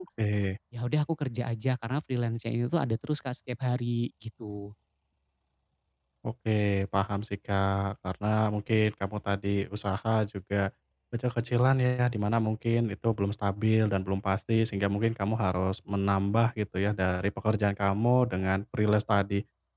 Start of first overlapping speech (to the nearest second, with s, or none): none